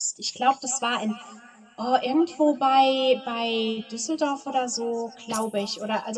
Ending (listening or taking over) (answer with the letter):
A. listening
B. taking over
A